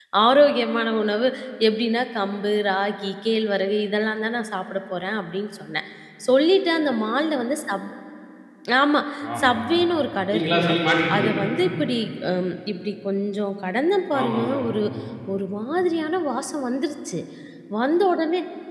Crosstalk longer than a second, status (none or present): none